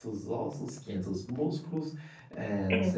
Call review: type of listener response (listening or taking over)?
listening